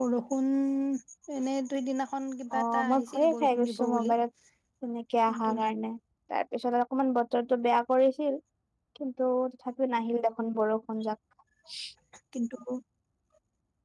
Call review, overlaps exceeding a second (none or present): present